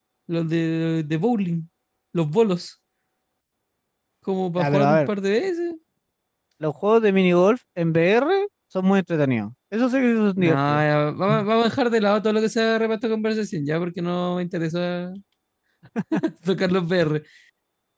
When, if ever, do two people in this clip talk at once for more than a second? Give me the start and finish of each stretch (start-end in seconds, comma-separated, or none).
none